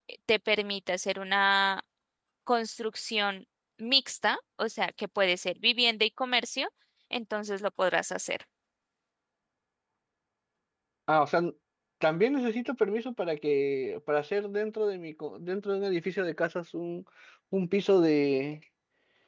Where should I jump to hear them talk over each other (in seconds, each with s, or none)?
none